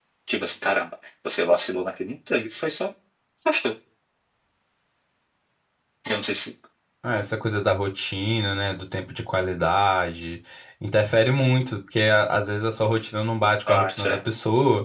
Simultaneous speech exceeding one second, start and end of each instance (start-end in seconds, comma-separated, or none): none